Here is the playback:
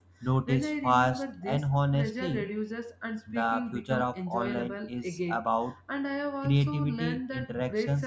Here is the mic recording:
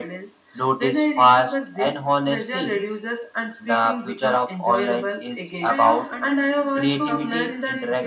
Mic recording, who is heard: both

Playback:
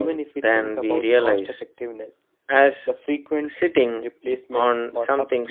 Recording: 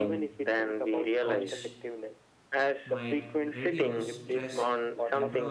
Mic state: both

